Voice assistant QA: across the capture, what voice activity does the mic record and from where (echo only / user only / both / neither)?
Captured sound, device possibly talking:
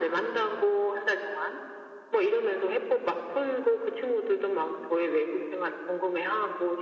echo only